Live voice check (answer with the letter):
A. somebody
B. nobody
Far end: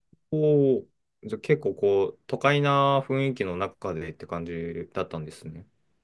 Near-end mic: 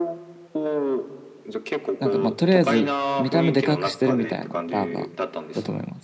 A